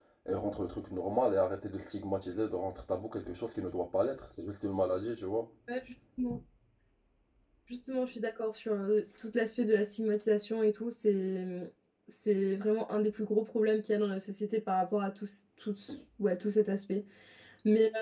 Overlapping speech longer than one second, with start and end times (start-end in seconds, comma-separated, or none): none